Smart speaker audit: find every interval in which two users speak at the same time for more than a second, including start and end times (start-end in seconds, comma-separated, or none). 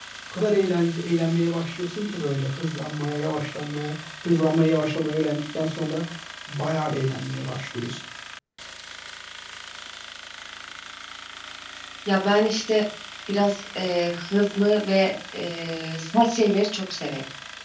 none